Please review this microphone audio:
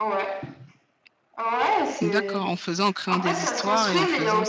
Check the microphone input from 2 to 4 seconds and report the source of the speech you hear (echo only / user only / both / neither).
both